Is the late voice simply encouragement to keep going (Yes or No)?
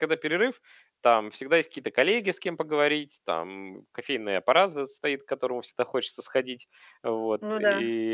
Yes